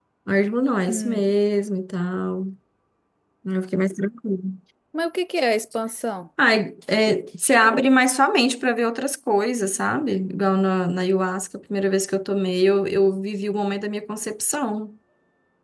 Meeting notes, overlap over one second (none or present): none